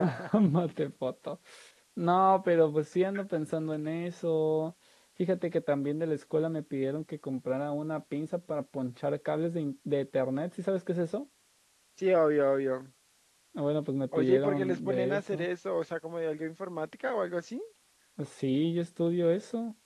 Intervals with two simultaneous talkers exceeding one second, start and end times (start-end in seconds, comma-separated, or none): 14.2-15.5